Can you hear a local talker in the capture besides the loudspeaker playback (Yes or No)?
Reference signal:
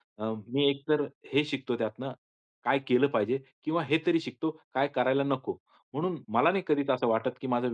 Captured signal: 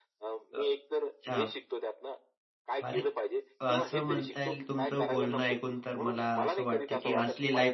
Yes